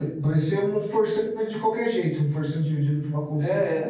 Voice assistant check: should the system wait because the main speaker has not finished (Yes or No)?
No